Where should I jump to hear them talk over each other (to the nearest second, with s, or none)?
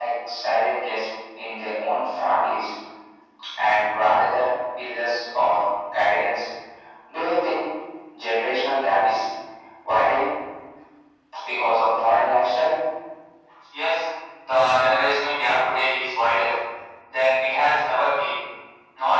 none